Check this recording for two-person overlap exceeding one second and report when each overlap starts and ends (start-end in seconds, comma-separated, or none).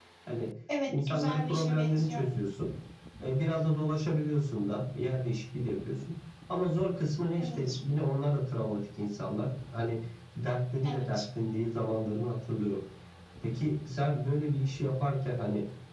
0.9-2.2